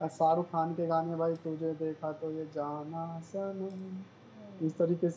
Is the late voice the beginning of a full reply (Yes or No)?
Yes